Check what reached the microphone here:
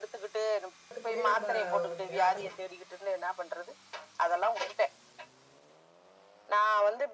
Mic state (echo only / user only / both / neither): both